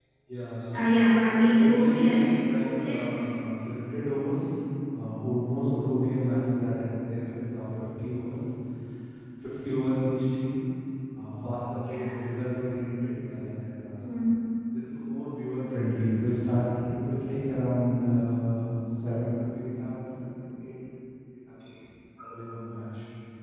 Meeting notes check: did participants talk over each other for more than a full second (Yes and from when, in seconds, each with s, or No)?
Yes, from 1.3 s